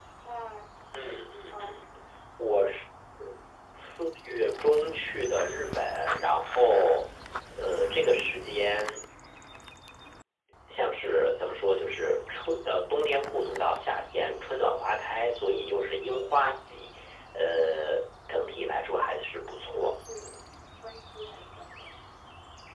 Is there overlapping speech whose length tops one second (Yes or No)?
Yes